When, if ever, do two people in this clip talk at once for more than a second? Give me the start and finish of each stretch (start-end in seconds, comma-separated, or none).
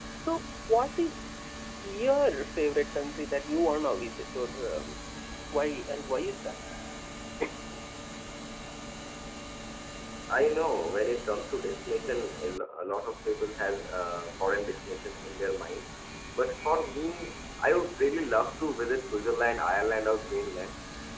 none